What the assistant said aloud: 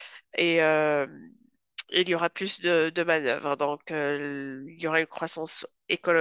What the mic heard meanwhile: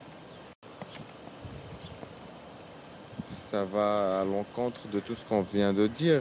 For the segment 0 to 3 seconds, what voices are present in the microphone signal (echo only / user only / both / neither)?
neither